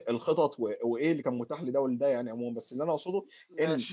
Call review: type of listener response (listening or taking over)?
listening